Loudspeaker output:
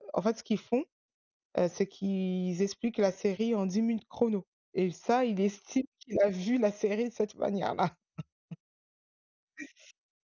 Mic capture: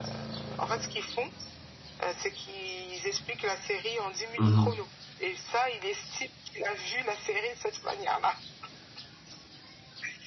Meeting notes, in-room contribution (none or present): present